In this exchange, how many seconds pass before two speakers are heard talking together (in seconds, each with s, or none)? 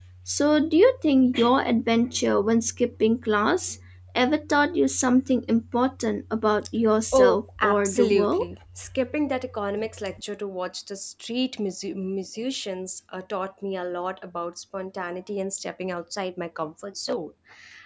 7.1 s